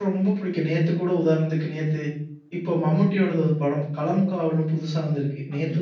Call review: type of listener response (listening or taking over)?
listening